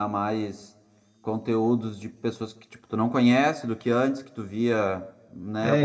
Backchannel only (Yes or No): No